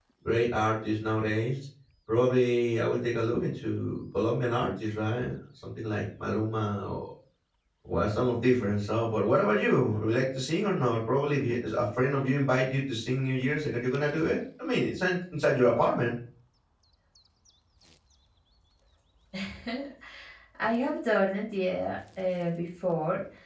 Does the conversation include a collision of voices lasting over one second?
No

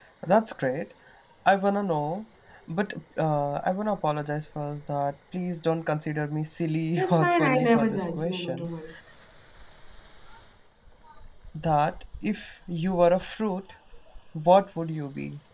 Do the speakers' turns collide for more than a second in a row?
Yes, from 7.0 s

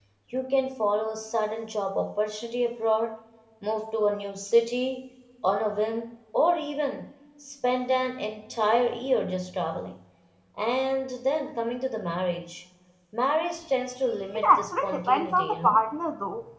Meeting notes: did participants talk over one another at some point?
Yes, from 14.3 s

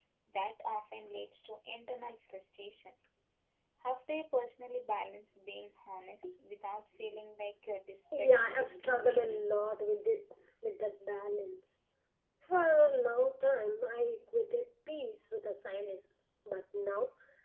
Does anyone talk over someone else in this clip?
Yes, from 8.1 s

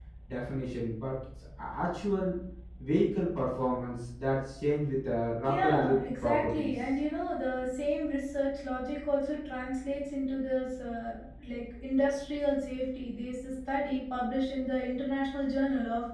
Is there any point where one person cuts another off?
Yes, from 5.5 s

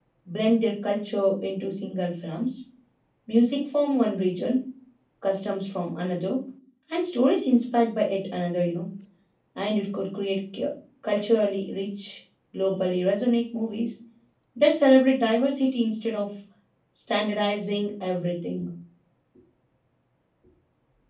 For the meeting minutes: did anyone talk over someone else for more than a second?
No

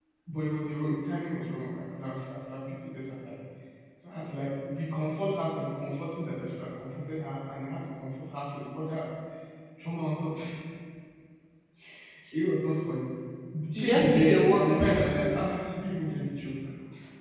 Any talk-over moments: Yes, from 13.8 s

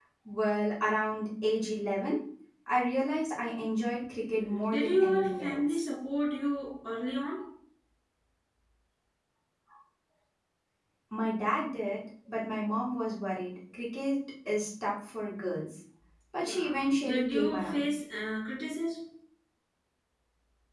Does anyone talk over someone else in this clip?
Yes, from 4.3 s

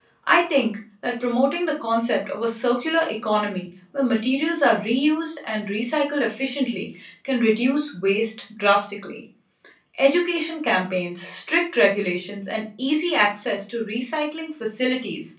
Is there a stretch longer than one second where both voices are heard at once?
No

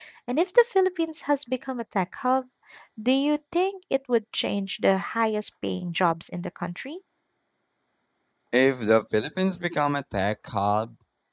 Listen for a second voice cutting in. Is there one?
No

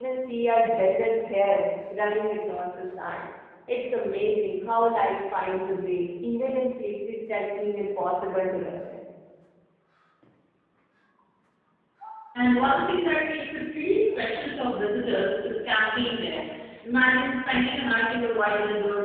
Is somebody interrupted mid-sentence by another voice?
No

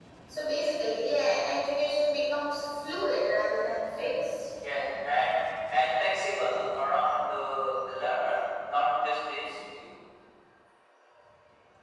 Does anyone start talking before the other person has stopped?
No

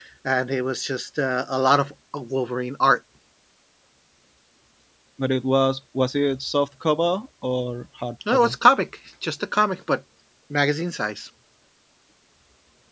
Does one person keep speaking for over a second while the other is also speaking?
No

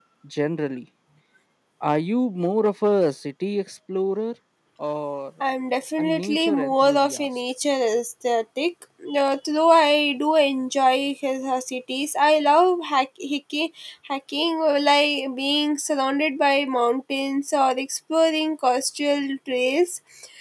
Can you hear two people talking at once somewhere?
Yes, from 6.0 s

